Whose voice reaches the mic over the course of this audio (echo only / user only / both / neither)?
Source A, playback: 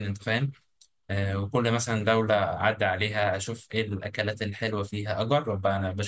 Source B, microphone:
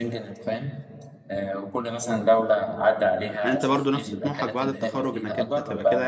both